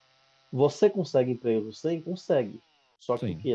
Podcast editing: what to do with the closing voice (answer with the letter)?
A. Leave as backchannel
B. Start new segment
A